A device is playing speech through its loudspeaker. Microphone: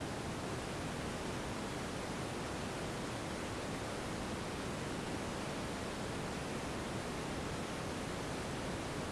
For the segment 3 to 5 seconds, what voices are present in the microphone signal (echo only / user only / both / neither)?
neither